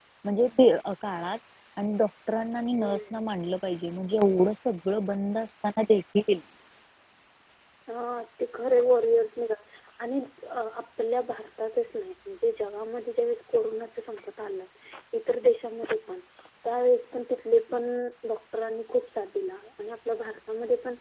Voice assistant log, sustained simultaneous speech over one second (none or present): none